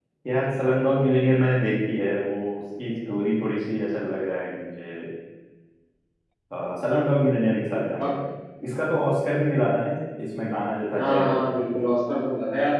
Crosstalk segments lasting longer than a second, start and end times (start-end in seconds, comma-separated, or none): none